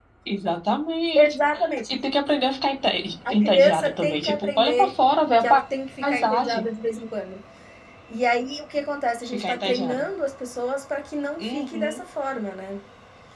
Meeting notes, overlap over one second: present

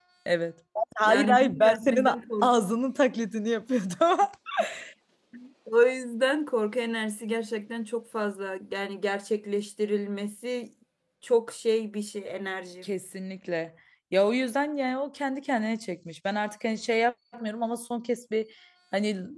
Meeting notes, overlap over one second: present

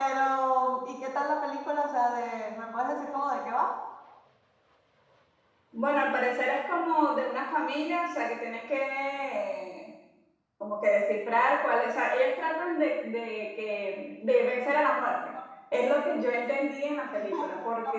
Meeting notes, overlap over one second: none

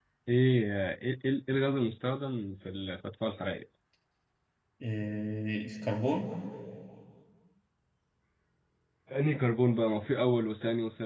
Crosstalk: none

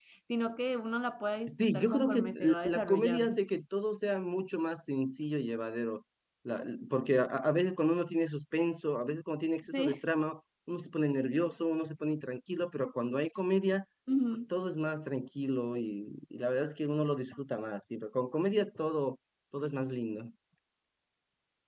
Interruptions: present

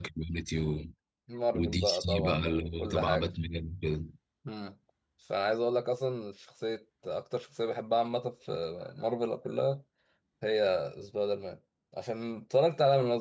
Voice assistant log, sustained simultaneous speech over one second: present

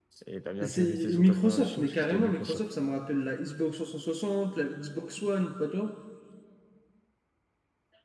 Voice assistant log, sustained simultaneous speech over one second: present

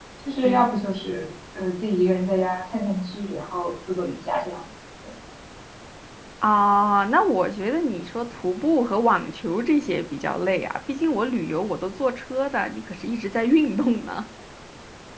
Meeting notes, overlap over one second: none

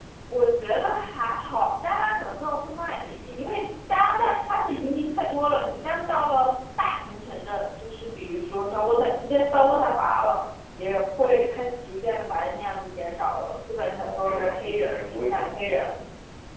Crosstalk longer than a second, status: present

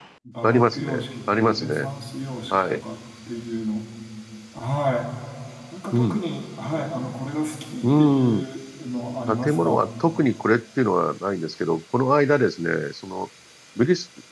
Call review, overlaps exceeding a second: present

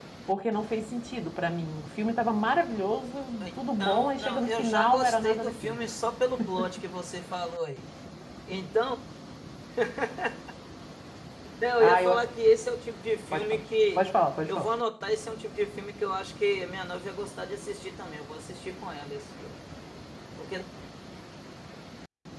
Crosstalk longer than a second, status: present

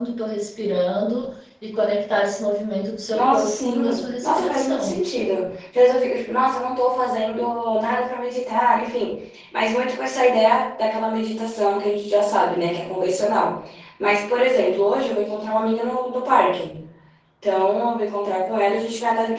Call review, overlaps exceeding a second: present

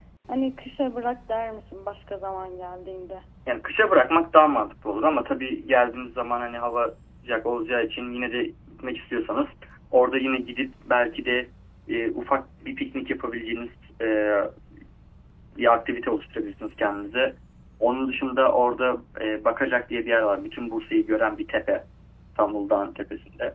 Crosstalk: none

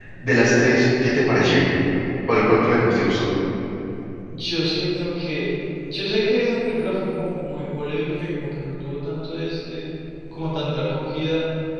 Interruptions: none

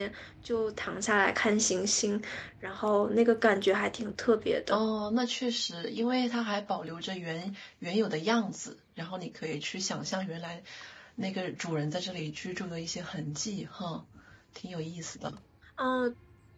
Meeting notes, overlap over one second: none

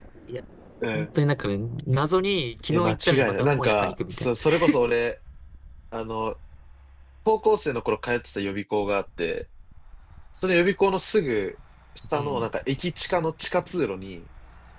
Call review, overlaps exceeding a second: present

